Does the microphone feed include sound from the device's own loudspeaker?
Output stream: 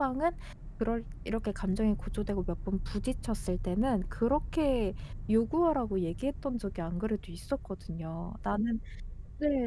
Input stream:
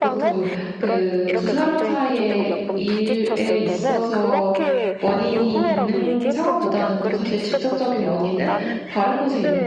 Yes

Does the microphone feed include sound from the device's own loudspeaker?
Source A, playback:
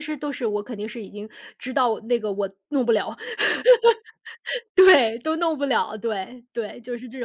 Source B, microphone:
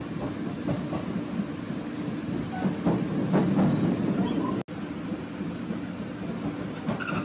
No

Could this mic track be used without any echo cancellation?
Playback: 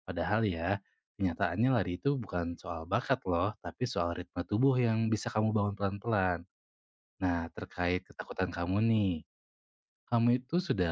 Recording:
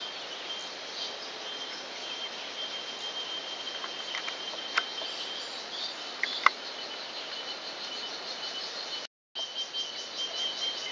Yes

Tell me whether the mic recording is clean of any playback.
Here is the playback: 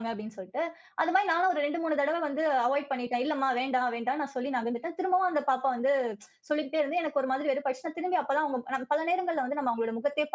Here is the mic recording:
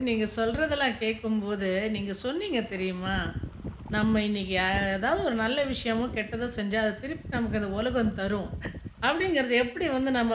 Yes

